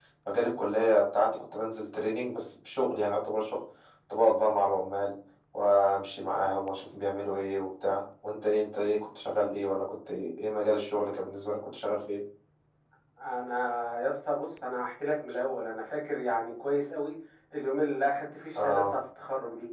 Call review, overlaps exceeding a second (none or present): none